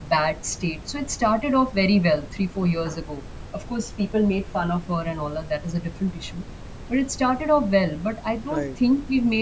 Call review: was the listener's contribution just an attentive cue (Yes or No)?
Yes